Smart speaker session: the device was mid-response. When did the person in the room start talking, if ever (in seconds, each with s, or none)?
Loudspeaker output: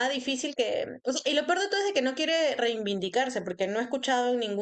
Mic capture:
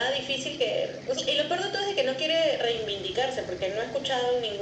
none